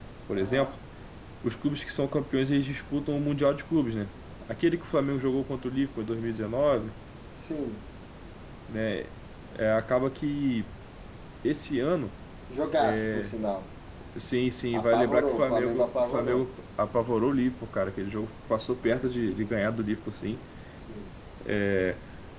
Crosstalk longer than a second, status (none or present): present